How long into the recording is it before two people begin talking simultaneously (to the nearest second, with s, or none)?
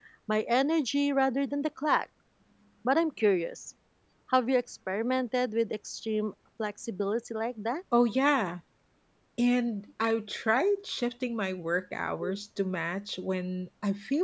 none